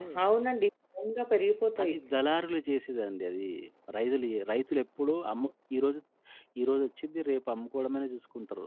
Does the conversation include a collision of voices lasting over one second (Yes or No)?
No